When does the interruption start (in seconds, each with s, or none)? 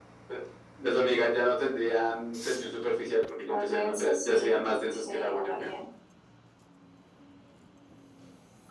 3.5 s